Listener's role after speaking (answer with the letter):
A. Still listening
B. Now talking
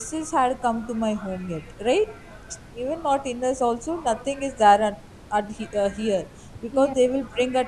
A